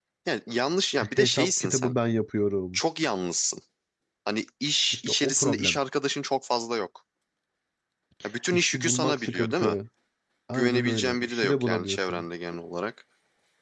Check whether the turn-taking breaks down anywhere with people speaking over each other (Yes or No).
Yes